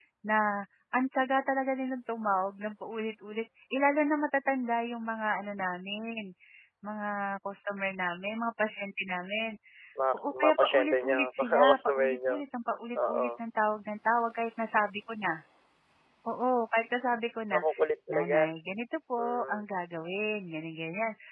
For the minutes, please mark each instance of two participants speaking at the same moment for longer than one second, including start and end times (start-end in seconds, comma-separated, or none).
10.1-12.3